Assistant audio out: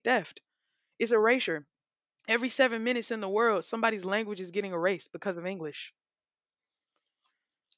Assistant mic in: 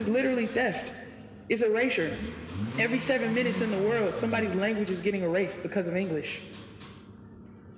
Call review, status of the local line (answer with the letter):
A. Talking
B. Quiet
B